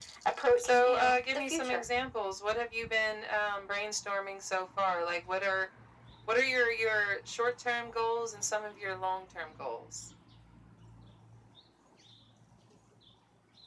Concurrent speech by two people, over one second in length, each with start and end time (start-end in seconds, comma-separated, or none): 0.6-1.8